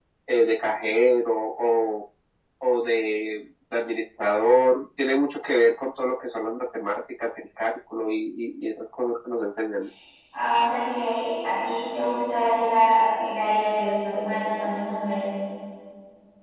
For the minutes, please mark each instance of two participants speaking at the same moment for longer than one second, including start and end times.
none

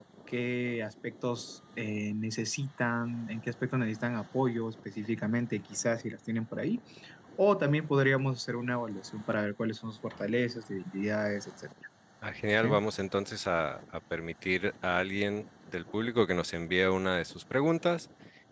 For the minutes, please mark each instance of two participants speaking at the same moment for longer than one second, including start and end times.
none

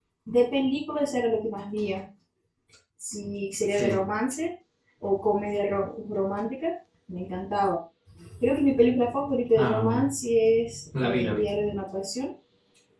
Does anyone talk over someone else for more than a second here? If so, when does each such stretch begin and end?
none

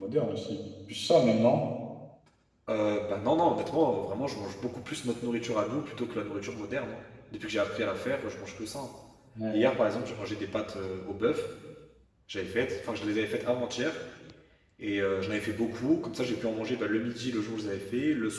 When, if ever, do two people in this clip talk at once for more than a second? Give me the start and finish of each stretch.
none

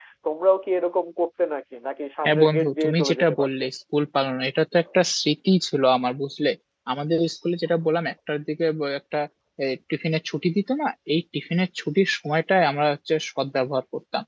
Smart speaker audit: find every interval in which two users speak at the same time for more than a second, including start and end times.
2.2-3.6

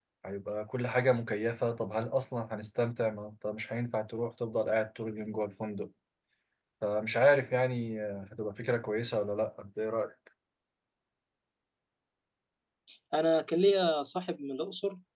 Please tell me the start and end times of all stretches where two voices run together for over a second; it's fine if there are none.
none

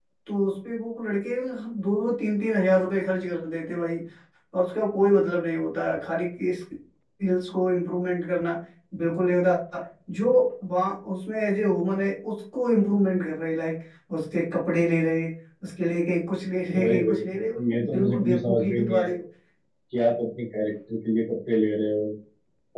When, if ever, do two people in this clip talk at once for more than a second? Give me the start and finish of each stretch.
16.8-19.1

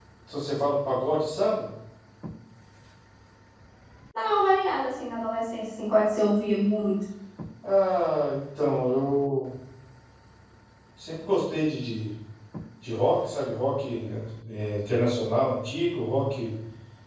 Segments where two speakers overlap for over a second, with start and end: none

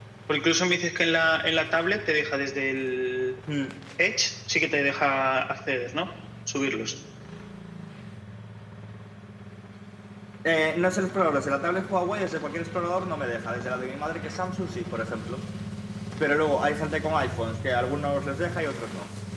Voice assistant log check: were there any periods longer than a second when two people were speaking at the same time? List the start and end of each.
none

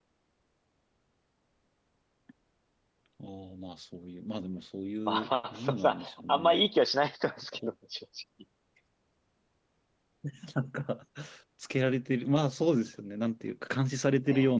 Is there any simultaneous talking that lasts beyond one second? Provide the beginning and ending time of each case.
5.1-6.5

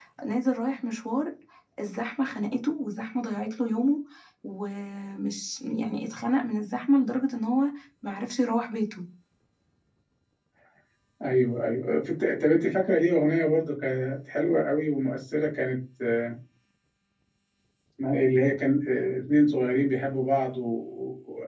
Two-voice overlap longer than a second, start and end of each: none

